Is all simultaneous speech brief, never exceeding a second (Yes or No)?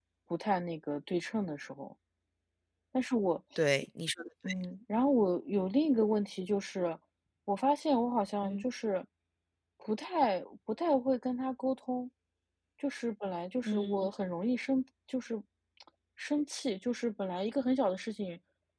Yes